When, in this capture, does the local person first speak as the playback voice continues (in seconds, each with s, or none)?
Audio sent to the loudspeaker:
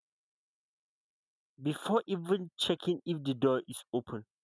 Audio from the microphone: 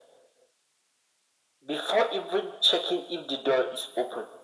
none